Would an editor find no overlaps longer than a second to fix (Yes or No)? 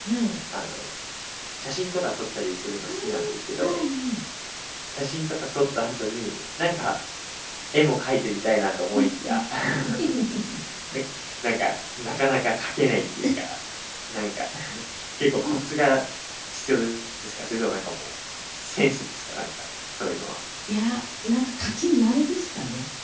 Yes